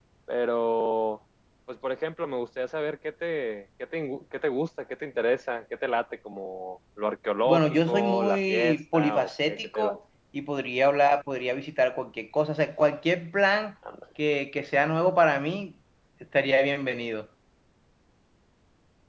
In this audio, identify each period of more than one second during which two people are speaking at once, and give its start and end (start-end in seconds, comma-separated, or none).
7.5-9.9